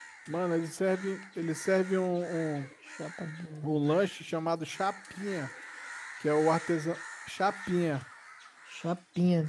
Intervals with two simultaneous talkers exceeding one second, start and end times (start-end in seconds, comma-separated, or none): none